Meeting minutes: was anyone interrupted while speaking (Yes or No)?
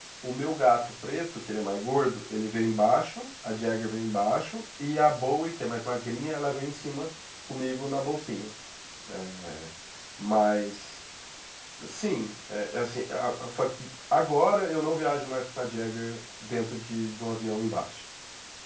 No